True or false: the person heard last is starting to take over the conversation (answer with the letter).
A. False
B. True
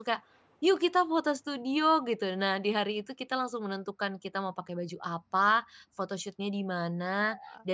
A